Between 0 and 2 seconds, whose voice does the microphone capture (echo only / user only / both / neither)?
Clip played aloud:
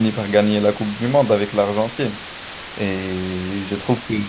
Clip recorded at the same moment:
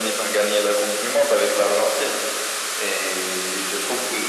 echo only